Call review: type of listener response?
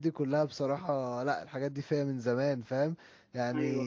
listening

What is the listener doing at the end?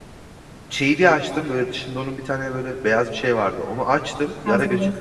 listening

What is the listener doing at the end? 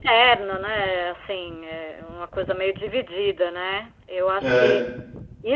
listening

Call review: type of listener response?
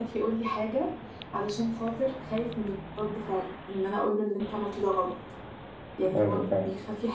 listening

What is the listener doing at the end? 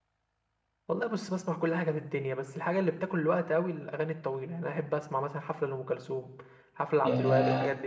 taking over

